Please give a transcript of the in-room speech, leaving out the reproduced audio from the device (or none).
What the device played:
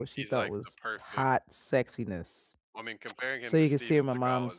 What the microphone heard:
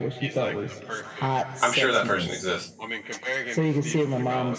I'm sure that person exists,